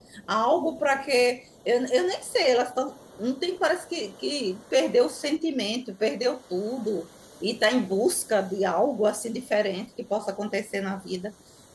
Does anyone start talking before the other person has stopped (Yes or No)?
No